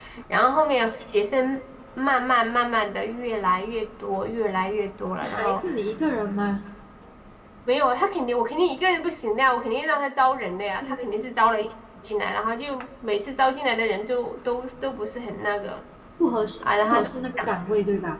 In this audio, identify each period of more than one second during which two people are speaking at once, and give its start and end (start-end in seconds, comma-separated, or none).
none